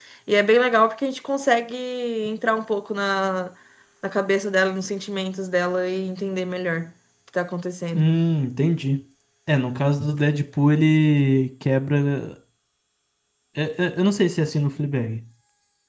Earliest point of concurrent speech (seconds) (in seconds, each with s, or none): none